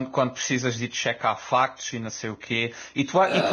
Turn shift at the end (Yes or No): No